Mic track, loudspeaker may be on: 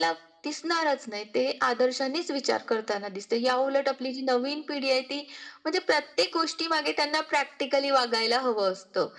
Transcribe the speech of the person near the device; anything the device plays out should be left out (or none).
none